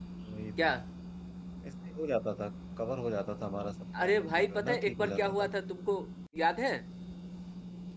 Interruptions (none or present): present